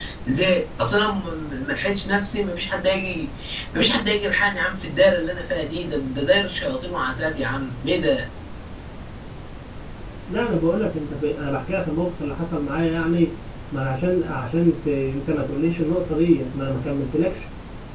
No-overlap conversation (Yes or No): Yes